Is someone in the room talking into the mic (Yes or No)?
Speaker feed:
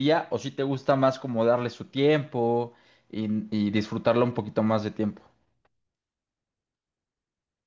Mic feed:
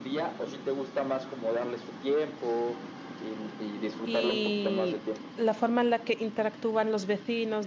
Yes